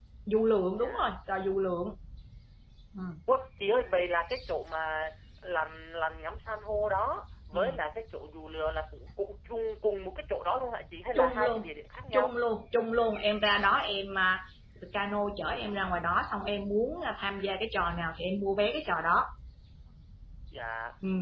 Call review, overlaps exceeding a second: none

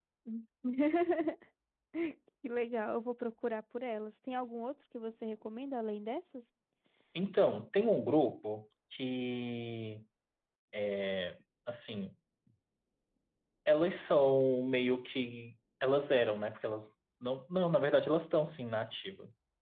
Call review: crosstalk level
none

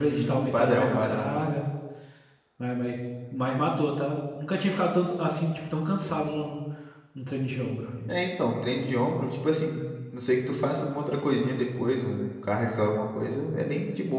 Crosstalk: present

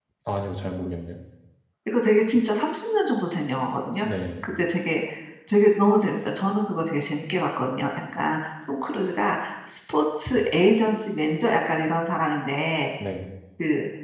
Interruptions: none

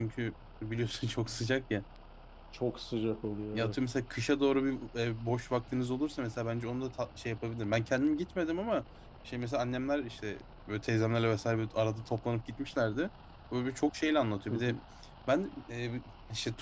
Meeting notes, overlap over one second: none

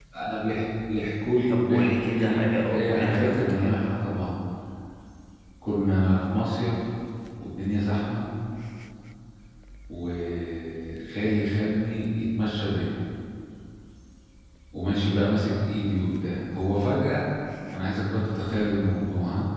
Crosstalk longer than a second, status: present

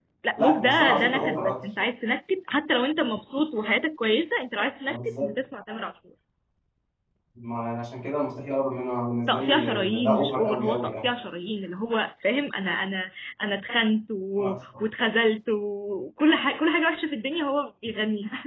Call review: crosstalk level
present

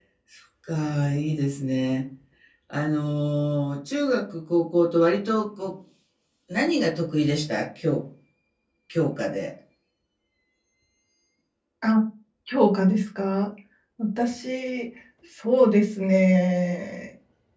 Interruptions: none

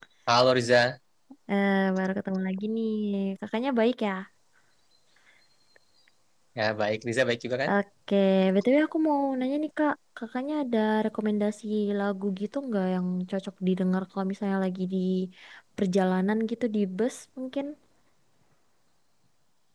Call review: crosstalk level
none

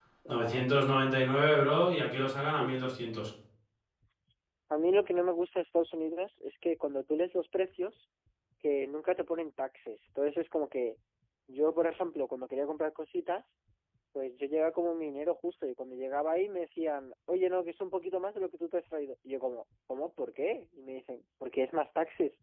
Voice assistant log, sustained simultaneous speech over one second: none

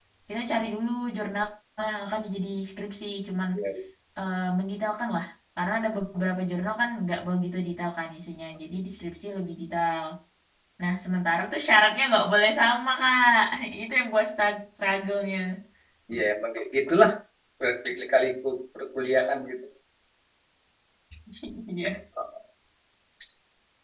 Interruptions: none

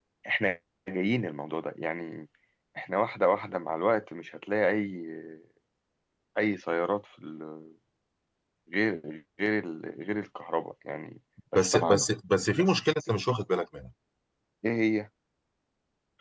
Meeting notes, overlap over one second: none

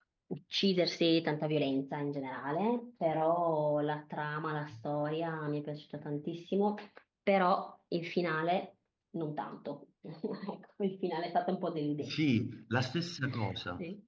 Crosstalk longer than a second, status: none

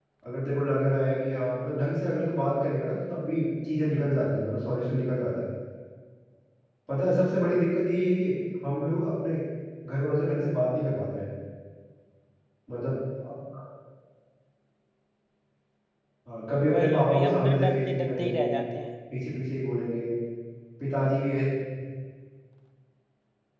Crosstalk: present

